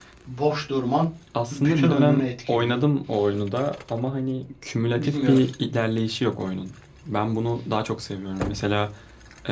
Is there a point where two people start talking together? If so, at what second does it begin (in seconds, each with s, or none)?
1.5 s